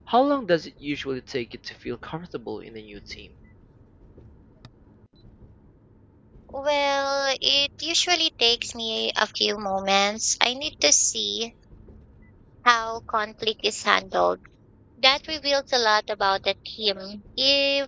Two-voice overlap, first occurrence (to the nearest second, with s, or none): none